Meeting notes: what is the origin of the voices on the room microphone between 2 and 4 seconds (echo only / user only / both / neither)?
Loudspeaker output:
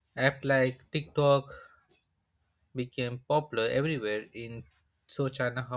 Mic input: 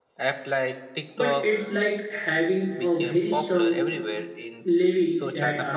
both